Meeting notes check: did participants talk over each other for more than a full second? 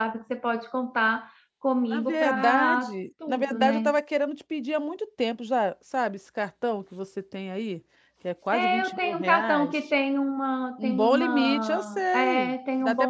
Yes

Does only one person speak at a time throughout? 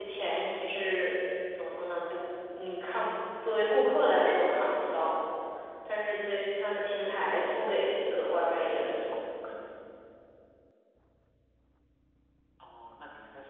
Yes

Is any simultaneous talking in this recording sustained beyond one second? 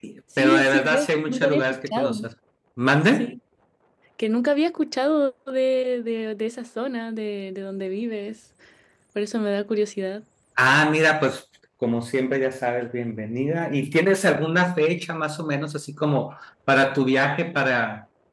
Yes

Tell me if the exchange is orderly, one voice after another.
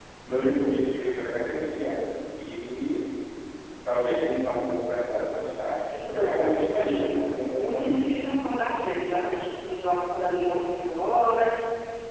No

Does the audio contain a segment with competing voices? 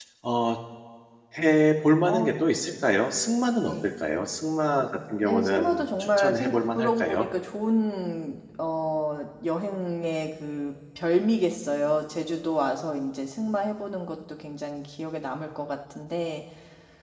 Yes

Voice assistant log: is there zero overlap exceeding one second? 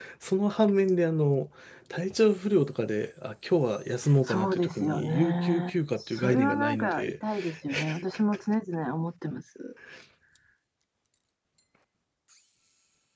No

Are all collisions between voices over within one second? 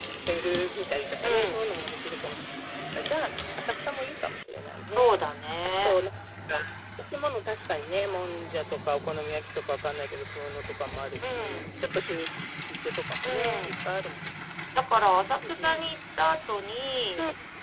Yes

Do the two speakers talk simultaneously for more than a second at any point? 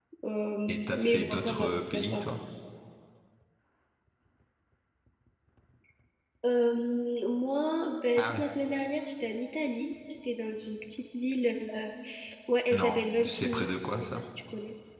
Yes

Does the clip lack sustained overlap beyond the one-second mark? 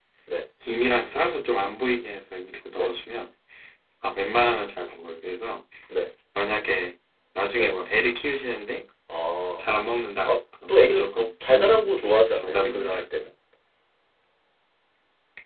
No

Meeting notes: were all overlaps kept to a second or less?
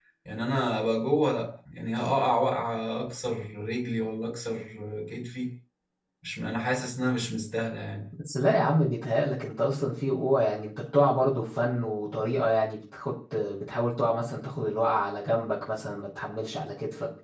Yes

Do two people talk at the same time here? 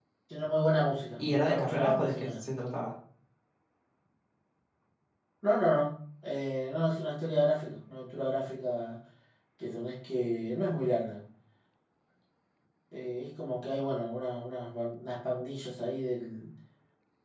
Yes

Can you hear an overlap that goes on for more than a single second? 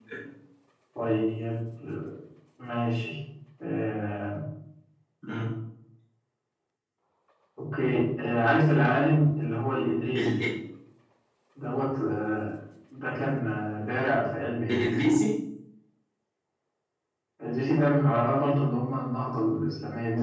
No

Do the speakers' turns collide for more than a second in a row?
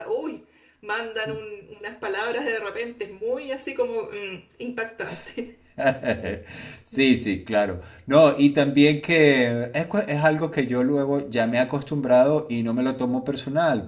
No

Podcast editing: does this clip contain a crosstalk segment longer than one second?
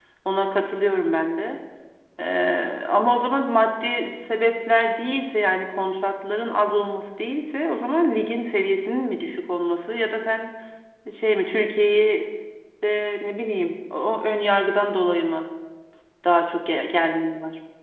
No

